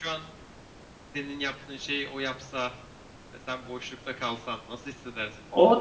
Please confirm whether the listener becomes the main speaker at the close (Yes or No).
Yes